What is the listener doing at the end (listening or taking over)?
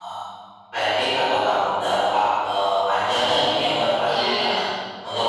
listening